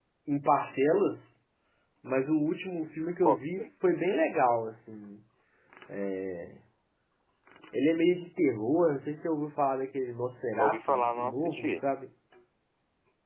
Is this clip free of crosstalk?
No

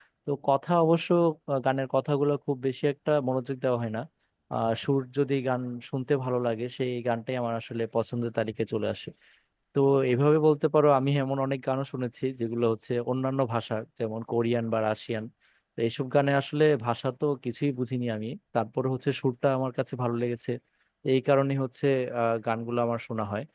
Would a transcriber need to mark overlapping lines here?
No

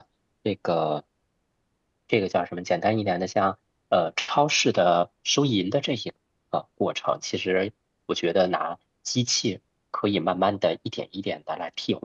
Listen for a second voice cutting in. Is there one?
No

